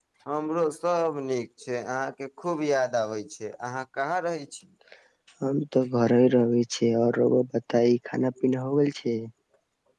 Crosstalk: none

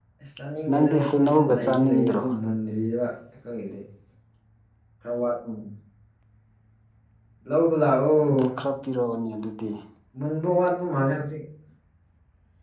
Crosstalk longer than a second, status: present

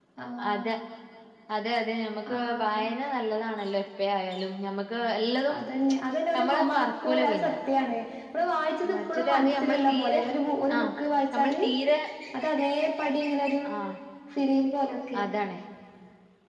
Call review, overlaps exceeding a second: present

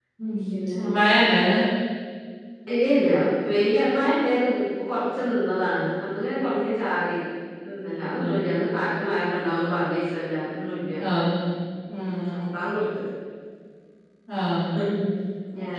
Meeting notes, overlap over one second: none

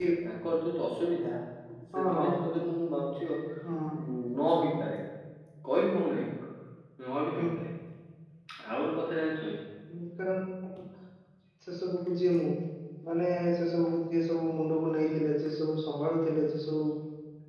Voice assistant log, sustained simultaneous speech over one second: none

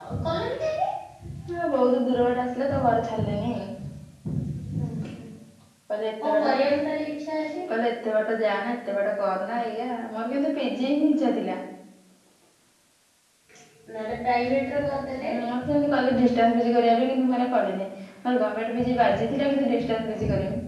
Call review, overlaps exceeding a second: none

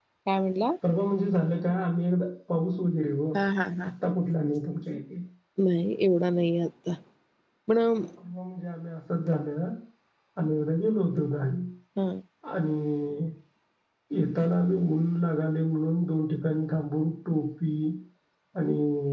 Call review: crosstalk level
none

